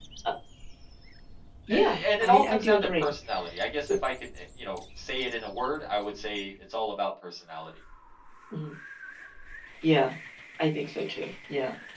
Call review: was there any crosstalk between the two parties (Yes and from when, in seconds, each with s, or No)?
Yes, from 1.7 s